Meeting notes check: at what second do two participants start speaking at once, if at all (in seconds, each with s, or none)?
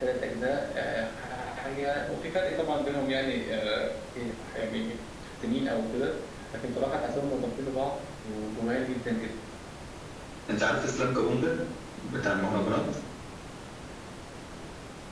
none